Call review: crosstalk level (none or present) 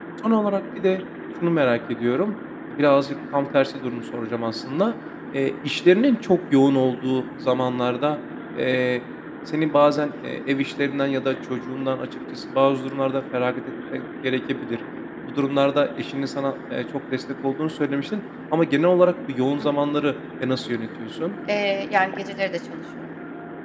none